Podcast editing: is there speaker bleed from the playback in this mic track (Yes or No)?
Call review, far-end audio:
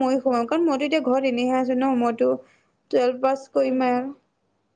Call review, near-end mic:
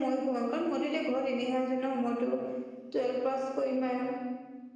Yes